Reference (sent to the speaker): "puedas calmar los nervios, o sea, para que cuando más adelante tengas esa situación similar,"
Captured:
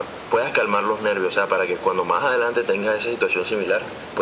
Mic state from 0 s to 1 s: echo only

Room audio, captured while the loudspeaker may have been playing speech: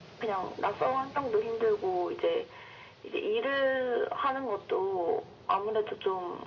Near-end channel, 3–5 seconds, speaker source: echo only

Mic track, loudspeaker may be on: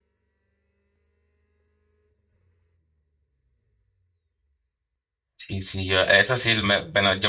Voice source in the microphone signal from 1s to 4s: neither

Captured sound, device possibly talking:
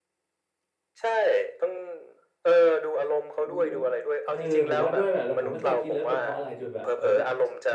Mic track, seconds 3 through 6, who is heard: both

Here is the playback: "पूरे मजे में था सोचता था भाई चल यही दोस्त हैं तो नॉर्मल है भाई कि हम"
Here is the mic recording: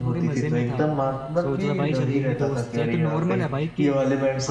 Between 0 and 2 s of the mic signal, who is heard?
both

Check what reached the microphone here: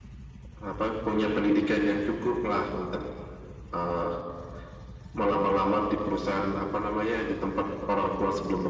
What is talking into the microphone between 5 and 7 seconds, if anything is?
echo only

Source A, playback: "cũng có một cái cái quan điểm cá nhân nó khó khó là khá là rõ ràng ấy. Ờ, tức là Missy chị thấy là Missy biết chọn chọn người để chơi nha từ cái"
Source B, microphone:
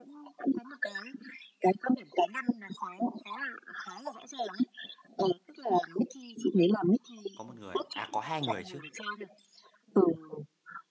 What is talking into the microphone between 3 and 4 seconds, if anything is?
echo only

